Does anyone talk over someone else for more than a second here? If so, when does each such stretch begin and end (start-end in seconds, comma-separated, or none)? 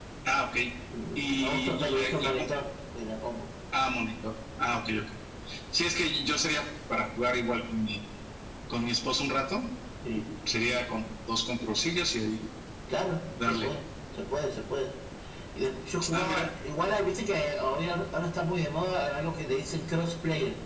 1.2-2.5